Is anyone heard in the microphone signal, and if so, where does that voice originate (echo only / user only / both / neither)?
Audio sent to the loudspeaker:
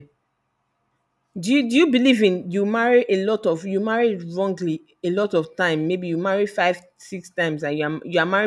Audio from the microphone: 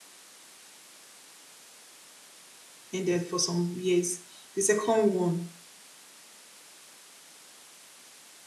user only